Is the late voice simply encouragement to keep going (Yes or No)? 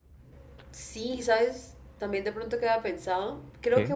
Yes